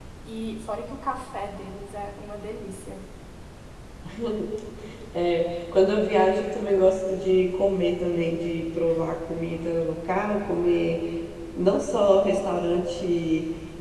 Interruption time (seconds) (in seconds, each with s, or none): none